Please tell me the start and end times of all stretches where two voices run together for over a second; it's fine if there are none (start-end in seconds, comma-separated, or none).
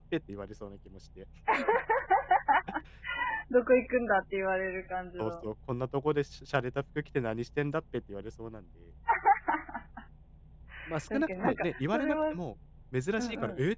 11.1-12.4